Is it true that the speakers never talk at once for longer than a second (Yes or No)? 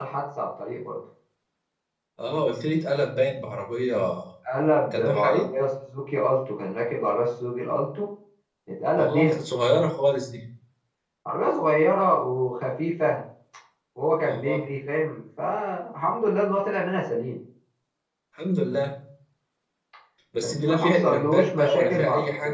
No